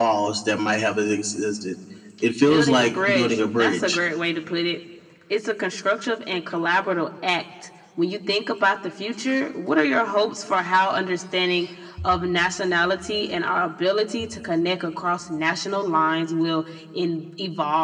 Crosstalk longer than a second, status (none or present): present